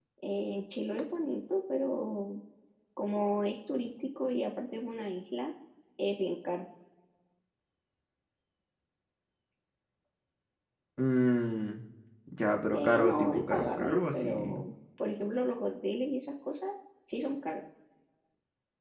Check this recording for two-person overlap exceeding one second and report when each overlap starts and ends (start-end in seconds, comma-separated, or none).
12.7-14.5